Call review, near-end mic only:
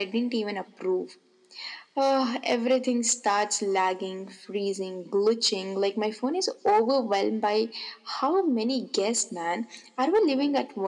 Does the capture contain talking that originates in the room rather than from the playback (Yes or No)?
No